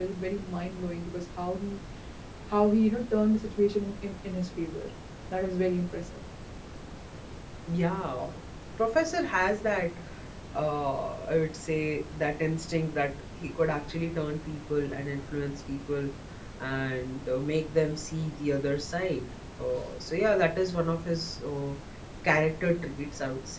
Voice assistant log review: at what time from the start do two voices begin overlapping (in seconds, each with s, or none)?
none